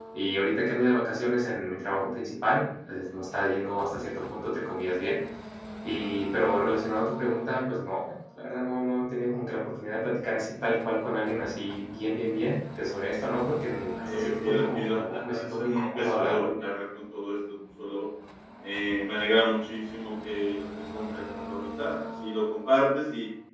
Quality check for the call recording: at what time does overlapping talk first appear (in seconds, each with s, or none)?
14.0 s